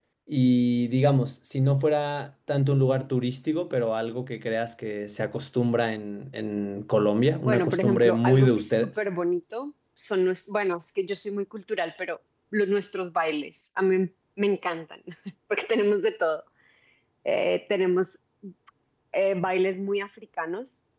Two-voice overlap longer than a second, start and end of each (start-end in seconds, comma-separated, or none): 7.4-8.9